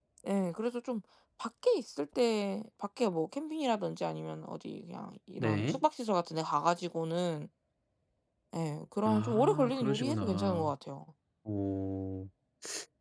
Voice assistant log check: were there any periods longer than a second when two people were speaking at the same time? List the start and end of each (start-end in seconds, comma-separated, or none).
9.1-10.7